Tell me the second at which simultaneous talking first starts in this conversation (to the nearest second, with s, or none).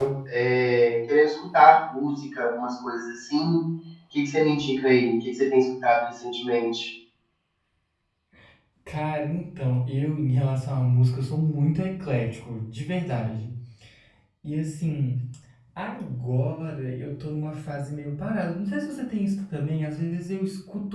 none